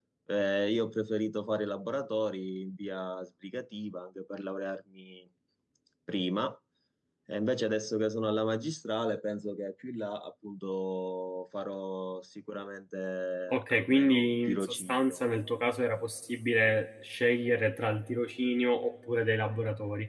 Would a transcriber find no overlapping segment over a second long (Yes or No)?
No